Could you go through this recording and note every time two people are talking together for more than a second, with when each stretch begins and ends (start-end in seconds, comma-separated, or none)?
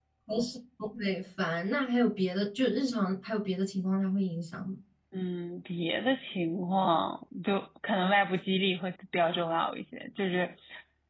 none